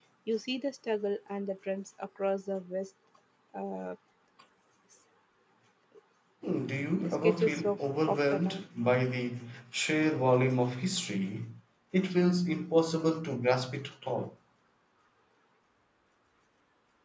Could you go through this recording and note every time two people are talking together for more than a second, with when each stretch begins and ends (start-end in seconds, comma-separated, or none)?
7.2-8.6